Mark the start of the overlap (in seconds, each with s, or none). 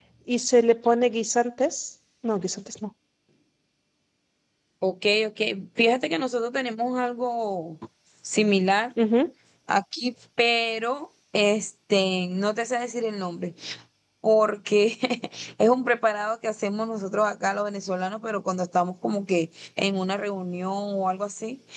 none